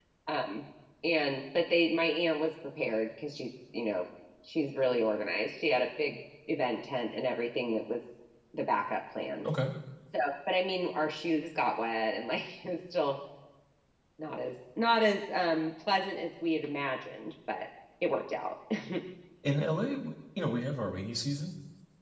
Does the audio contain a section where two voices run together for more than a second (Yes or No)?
No